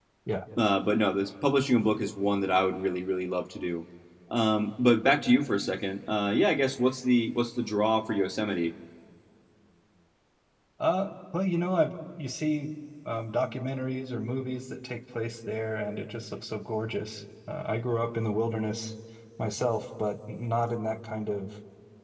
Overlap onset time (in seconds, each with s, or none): none